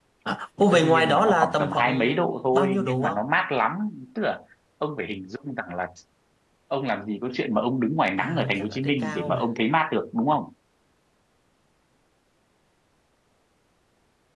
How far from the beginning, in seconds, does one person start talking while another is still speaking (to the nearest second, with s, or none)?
1 s